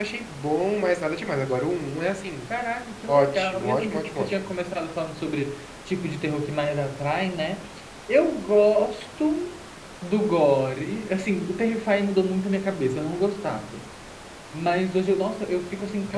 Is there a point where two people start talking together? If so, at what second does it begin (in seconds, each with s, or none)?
3.1 s